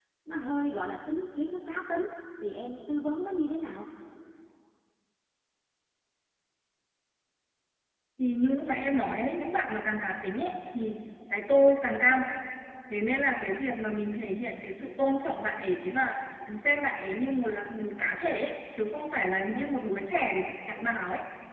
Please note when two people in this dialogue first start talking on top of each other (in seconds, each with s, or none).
none